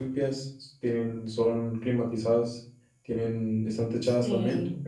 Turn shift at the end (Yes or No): Yes